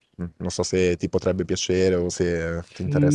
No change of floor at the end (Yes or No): No